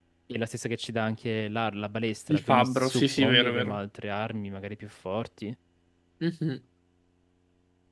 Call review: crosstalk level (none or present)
present